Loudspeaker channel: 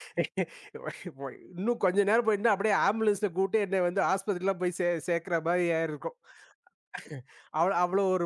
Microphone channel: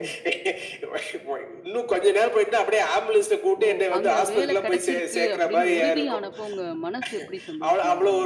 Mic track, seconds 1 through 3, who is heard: echo only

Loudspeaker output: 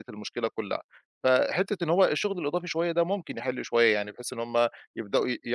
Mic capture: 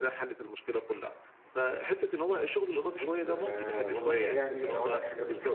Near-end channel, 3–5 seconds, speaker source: both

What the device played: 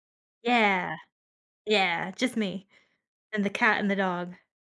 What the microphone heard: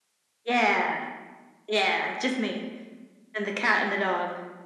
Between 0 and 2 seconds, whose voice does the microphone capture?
echo only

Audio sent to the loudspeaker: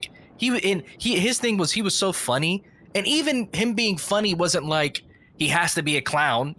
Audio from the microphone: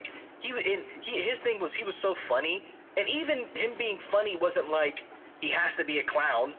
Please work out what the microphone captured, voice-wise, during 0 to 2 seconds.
echo only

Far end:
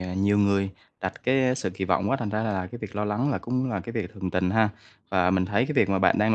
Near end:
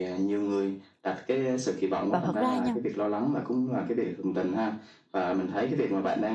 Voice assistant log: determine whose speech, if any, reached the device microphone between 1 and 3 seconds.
both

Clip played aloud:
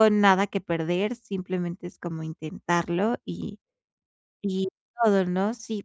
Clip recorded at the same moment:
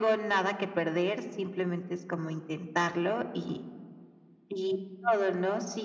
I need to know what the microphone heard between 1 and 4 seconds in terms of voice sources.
echo only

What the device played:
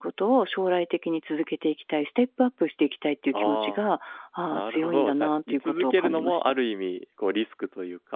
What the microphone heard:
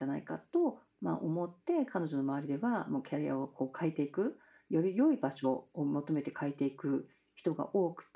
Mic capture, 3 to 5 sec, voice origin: user only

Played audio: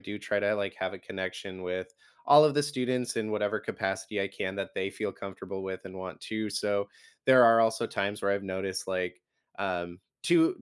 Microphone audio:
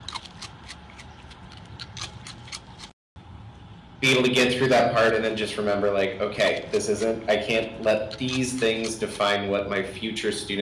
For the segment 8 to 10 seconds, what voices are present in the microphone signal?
user only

